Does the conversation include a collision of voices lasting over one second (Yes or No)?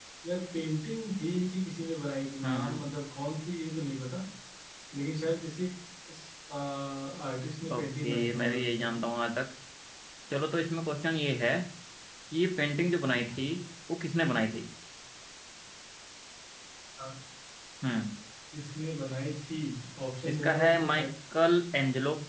Yes